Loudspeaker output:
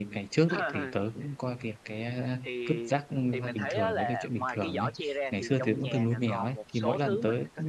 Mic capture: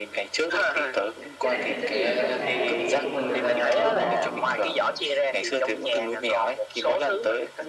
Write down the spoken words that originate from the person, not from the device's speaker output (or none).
Cái này thì tất nhiên là các bà, các mẹ của mình đều làm rồi, đúng hông?